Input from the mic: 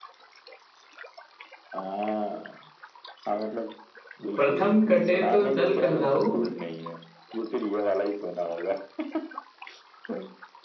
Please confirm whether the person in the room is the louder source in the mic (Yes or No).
Yes